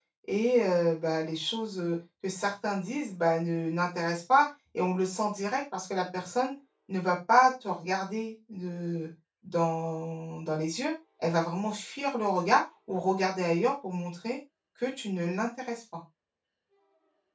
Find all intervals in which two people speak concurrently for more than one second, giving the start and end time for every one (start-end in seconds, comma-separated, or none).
none